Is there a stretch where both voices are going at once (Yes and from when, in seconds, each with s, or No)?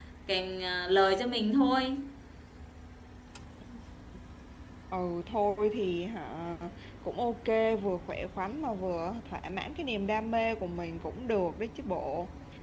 No